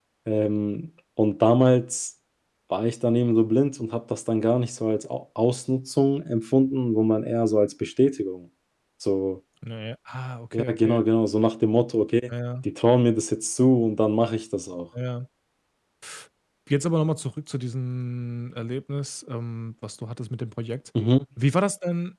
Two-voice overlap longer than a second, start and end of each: none

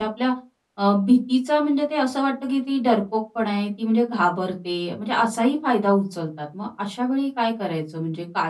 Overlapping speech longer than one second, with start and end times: none

